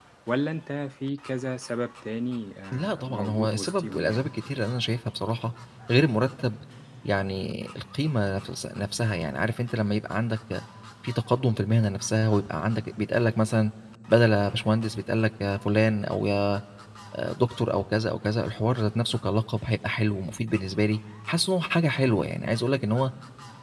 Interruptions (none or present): present